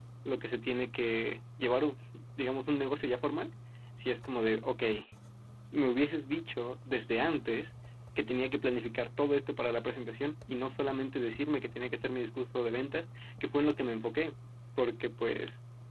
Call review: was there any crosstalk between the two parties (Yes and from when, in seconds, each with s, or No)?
No